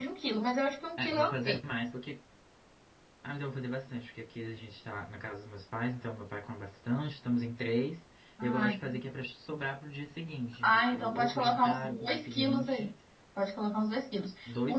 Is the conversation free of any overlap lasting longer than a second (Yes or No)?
No